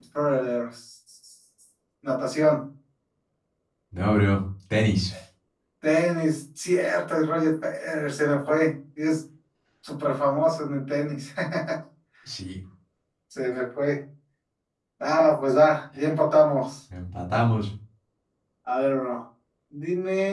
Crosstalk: none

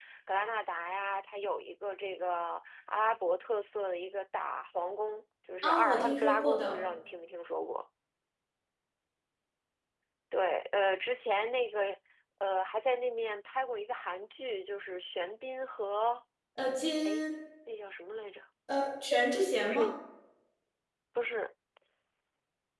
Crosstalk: present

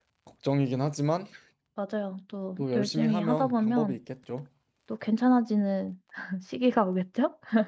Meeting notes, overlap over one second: present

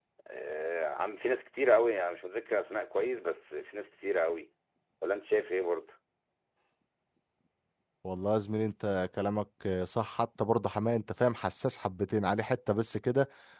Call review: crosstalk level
none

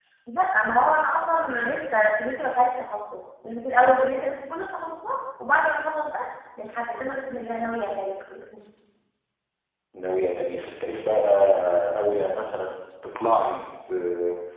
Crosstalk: none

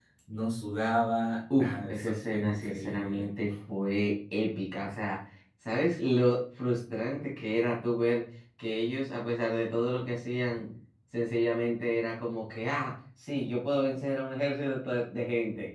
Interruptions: present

